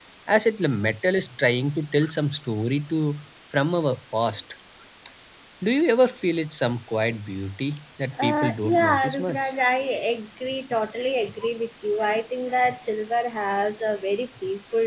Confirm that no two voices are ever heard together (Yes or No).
No